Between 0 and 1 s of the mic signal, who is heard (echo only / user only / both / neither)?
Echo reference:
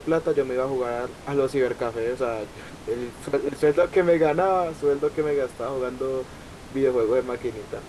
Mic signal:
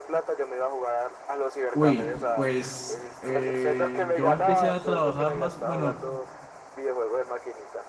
echo only